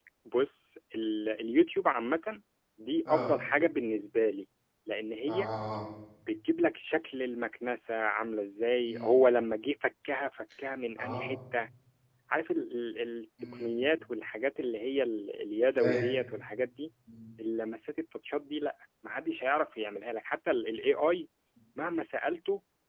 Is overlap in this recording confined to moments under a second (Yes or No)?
Yes